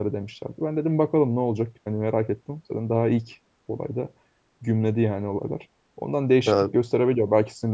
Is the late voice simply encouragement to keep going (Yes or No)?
Yes